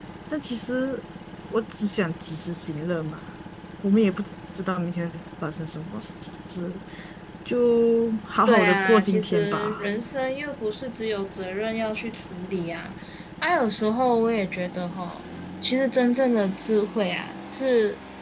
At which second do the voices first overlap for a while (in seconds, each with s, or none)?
8.5 s